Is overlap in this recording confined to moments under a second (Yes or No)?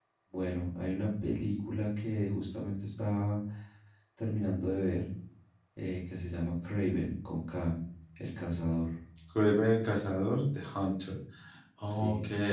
Yes